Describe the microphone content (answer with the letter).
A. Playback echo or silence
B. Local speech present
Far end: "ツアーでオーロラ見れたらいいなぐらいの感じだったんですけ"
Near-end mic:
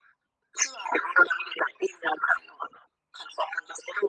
A